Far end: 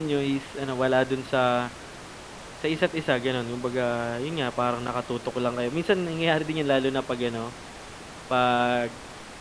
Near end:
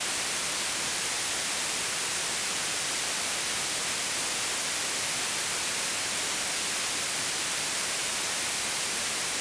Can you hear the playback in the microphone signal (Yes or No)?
No